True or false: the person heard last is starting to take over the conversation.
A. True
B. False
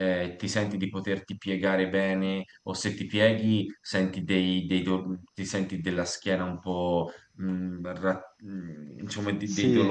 B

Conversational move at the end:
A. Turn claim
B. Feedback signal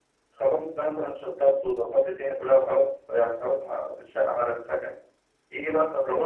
B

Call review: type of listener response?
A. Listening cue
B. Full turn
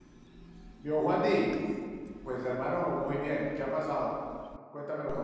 B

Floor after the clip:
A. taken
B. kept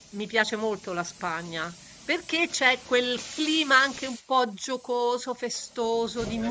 B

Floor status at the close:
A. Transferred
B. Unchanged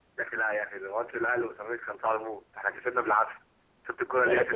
A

